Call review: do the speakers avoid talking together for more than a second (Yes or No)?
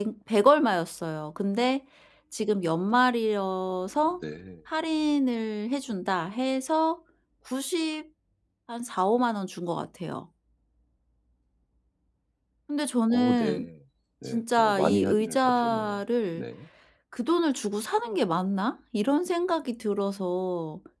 No